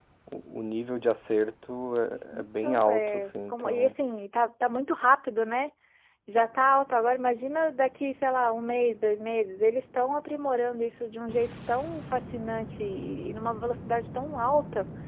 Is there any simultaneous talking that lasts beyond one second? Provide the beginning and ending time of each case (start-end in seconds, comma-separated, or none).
2.4-3.9